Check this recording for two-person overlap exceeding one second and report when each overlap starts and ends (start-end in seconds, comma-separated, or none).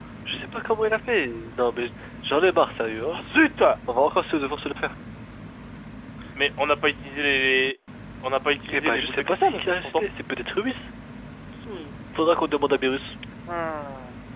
8.7-10.0